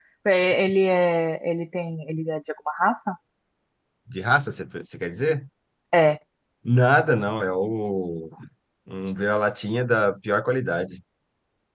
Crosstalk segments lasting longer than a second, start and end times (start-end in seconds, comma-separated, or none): none